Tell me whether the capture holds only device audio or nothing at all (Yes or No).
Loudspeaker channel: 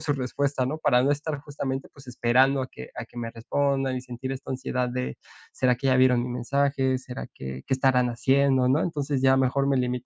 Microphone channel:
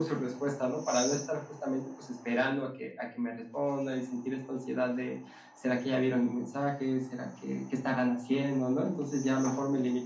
Yes